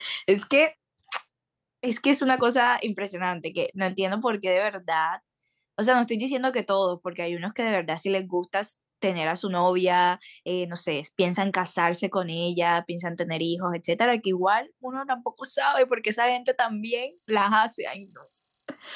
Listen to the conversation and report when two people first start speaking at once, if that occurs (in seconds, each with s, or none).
none